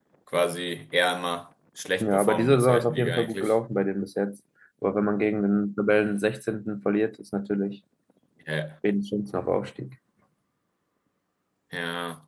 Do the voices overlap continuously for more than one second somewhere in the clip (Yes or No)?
Yes